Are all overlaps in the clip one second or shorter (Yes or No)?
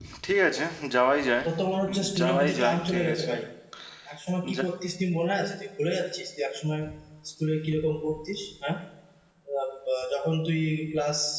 No